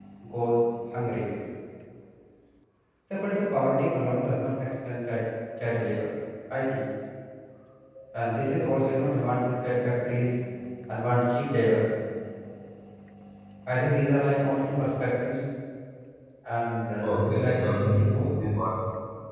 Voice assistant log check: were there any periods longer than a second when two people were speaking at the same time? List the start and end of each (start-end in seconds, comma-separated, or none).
17.0-18.2